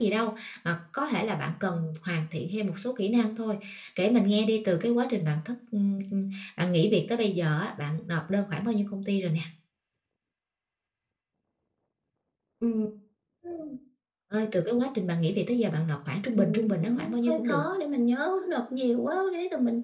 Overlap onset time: 16.4 s

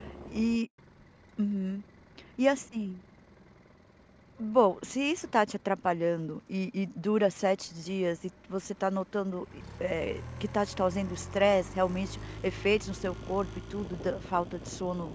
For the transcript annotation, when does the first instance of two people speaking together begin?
none

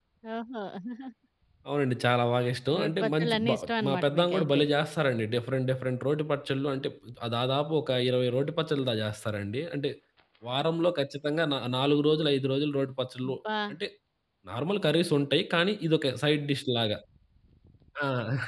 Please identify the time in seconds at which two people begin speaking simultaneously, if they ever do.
2.7 s

